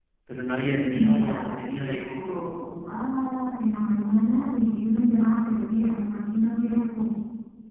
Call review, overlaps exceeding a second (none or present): present